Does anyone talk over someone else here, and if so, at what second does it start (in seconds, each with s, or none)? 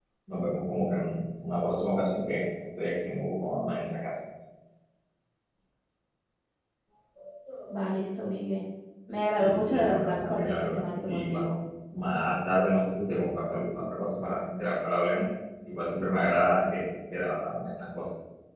9.4 s